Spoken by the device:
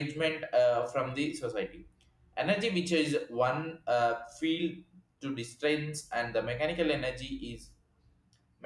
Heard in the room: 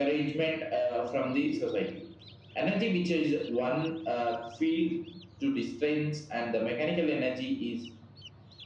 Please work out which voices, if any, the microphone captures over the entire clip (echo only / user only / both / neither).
echo only